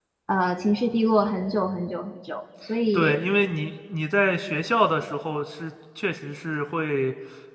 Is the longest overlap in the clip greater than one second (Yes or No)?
No